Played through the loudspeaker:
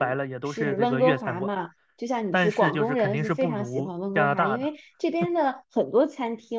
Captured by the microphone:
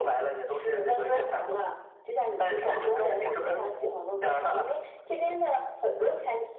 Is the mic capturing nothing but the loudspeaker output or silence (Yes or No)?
No